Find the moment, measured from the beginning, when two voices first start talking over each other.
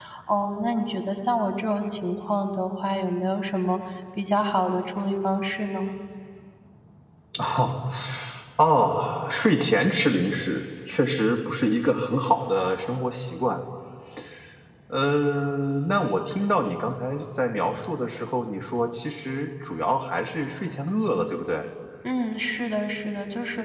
none

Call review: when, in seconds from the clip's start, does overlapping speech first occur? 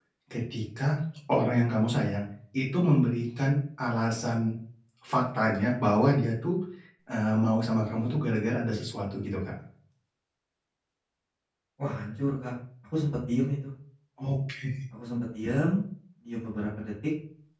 none

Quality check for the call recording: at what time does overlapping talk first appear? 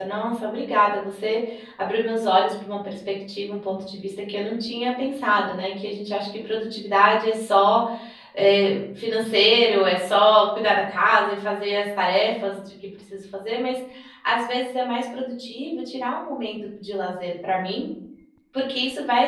none

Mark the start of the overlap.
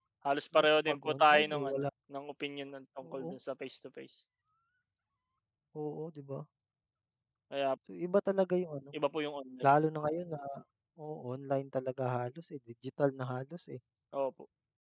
0.5 s

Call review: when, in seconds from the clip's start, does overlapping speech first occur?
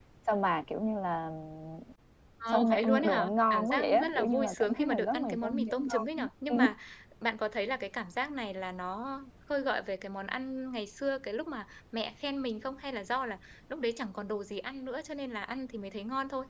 2.5 s

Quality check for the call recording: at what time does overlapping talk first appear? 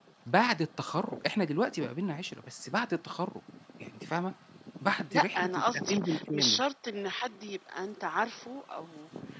5.1 s

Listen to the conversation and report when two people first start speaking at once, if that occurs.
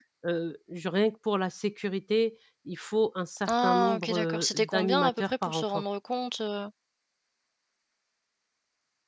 3.5 s

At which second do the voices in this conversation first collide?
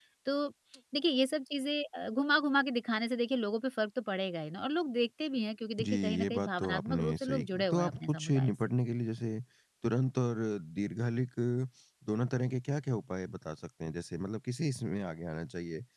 5.8 s

